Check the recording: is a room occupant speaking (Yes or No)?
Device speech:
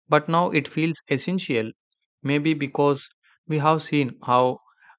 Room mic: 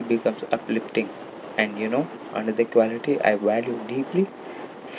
Yes